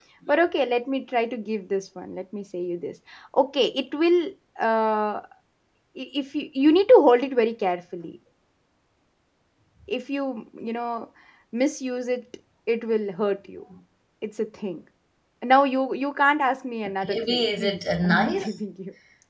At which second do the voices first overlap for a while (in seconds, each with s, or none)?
17.0 s